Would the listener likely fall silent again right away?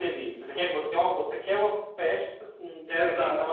No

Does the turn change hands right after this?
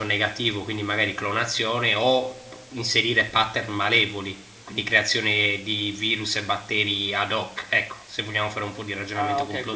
Yes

